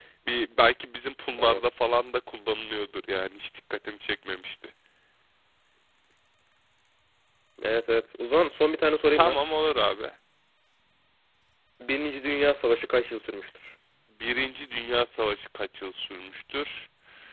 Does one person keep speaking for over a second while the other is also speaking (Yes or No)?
No